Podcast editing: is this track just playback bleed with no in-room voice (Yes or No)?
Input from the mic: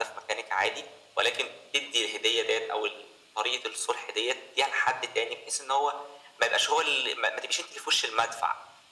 Yes